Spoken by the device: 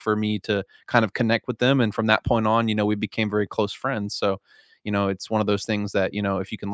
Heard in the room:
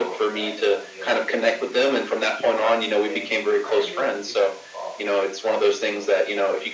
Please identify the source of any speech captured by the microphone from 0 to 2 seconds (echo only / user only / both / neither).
both